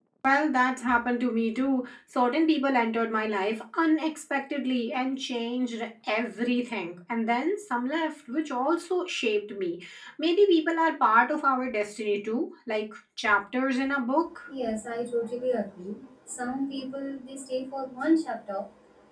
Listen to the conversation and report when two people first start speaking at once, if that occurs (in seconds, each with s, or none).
none